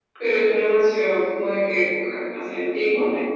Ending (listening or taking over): taking over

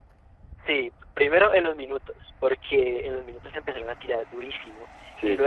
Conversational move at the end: listening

